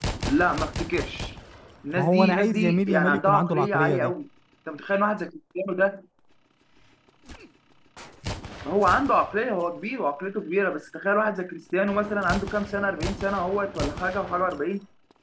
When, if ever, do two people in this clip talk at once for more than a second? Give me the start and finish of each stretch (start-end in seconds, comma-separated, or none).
2.0-4.1